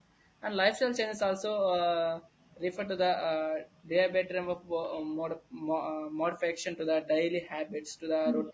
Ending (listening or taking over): listening